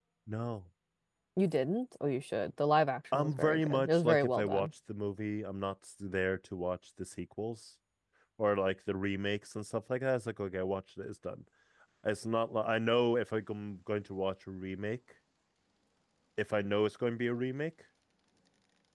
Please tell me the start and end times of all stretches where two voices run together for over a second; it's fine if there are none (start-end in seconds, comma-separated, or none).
3.1-4.7